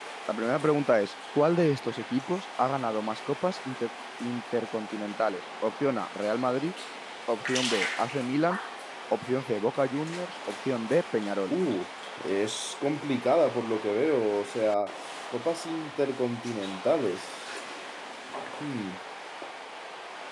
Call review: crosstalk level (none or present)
none